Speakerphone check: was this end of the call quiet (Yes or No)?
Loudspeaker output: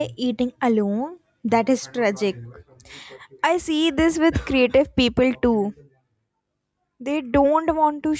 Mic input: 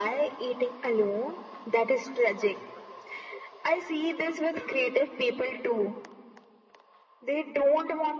Yes